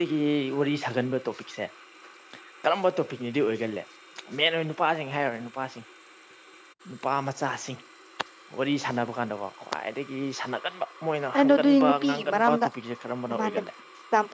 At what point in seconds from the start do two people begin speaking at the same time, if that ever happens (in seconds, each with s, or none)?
11.3 s